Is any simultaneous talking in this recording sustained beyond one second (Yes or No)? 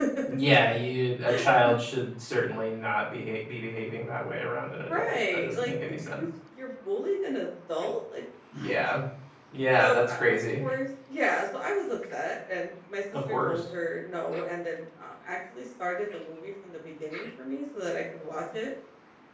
Yes